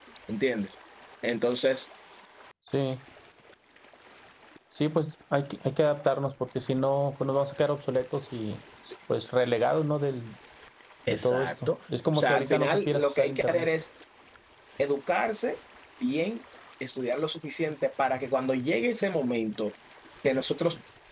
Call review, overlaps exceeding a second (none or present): present